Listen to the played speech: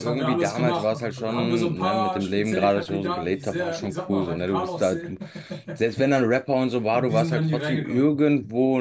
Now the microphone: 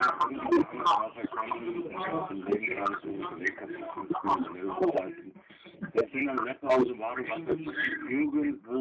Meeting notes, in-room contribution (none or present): present